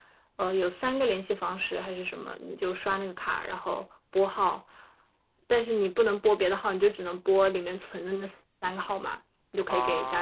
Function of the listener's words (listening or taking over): listening